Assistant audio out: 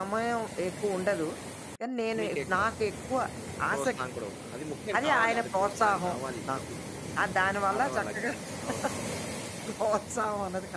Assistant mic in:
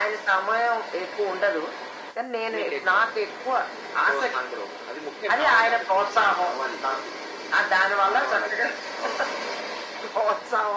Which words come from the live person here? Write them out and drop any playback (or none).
none